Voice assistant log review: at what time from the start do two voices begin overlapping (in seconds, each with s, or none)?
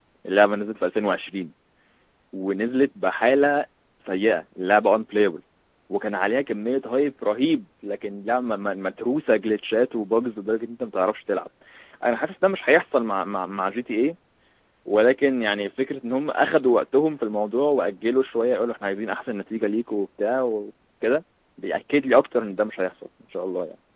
none